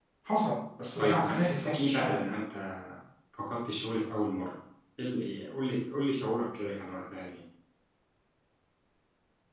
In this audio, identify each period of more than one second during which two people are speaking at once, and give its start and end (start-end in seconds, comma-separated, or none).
1.0-2.4